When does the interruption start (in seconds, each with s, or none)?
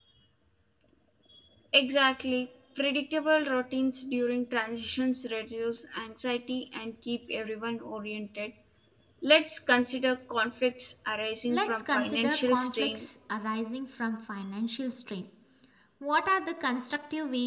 11.5 s